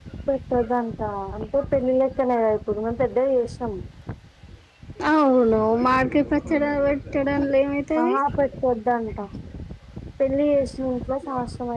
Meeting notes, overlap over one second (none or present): none